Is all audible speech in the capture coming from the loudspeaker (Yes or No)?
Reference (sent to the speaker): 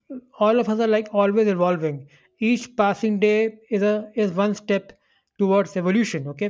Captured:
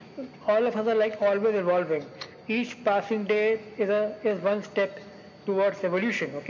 Yes